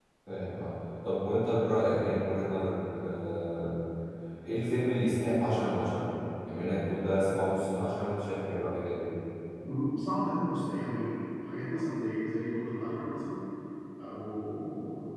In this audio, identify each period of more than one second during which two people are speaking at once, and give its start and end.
none

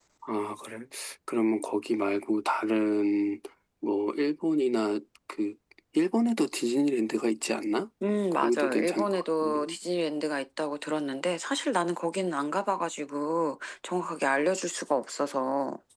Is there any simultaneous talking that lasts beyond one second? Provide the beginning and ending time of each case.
8.3-9.8

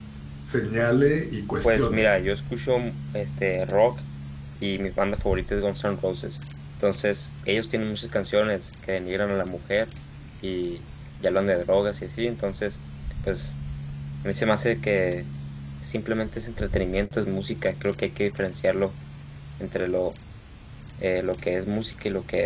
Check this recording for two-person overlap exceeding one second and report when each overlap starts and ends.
none

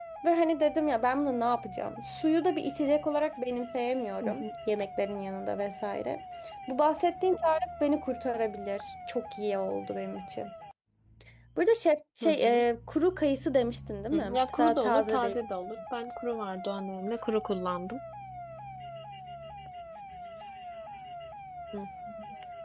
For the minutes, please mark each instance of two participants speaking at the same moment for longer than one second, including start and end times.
14.1-15.4

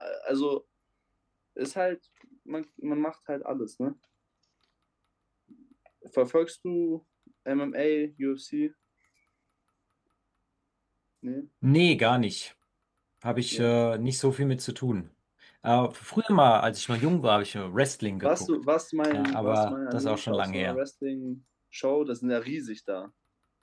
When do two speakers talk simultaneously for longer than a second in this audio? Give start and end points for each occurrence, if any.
19.1-20.8

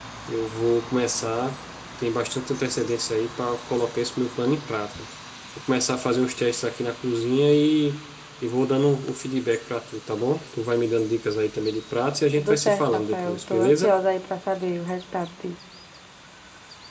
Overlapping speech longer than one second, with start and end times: 12.4-13.9

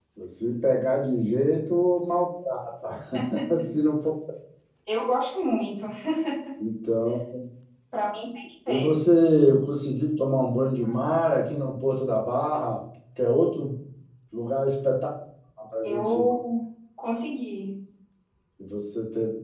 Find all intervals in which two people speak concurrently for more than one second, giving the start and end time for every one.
none

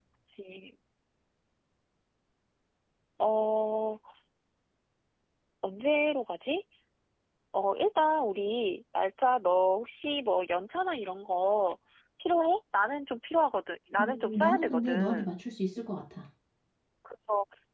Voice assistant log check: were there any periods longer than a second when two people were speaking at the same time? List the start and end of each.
14.0-15.3

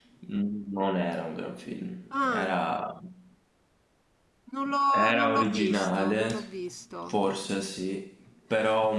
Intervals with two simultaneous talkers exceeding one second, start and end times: 4.9-6.3

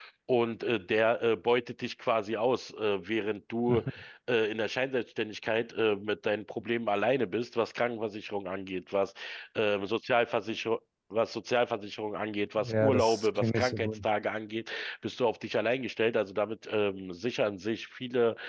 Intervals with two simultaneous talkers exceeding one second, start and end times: 12.6-14.1

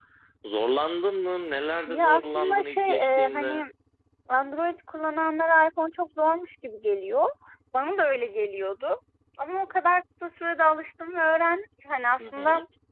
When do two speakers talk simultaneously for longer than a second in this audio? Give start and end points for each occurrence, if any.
1.9-3.6

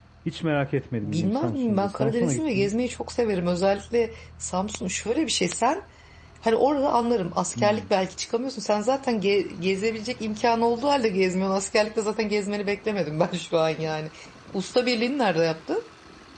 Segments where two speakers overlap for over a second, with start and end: 1.0-2.7

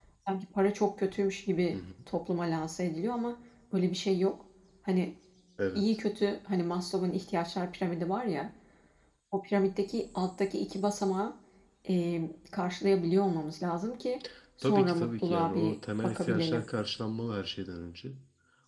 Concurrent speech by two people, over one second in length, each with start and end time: 14.6-16.7

